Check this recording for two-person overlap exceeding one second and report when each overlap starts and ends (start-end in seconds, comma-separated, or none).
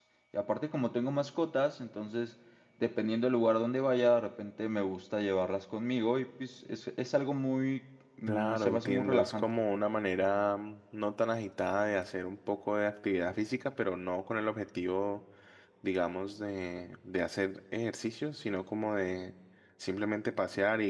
8.3-9.5